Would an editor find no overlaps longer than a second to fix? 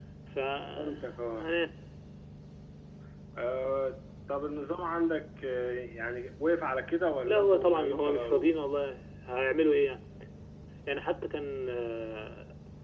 No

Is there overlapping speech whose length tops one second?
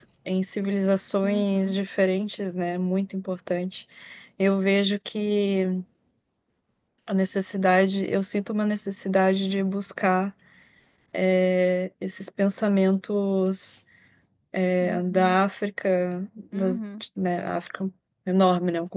No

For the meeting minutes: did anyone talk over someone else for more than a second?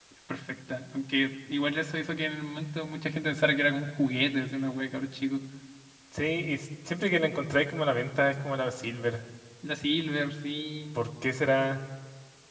No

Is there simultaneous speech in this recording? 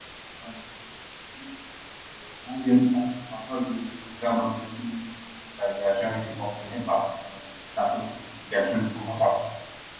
No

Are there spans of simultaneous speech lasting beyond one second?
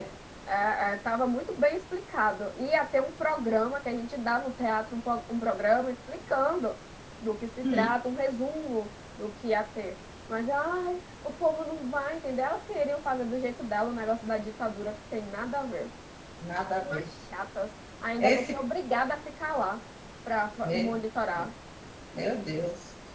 No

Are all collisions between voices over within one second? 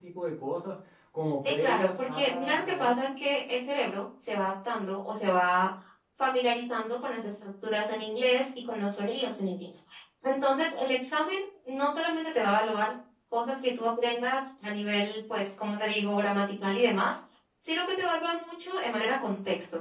No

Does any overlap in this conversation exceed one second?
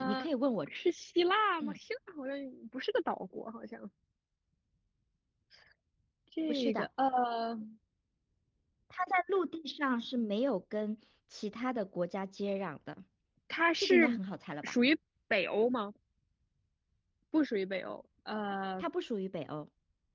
No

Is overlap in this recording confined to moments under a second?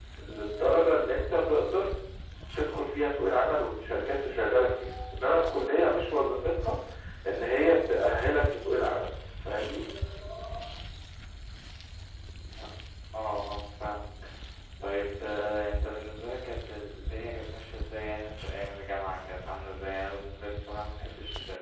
Yes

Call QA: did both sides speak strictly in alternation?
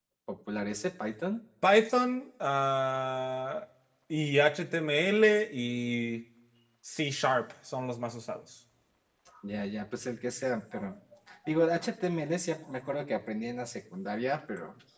Yes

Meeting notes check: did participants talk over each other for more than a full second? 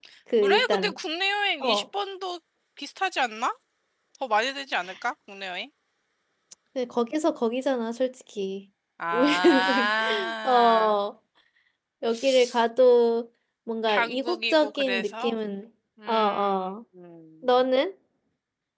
Yes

